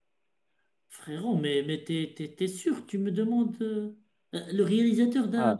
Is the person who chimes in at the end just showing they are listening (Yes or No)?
No